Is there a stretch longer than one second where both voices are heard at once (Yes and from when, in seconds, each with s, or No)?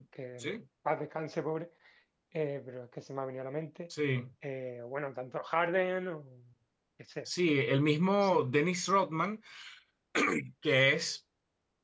No